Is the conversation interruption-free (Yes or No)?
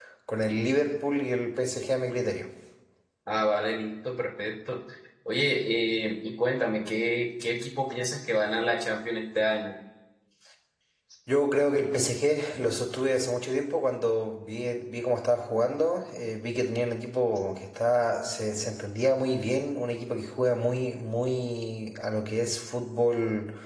Yes